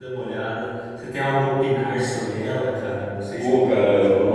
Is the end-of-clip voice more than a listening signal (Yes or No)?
Yes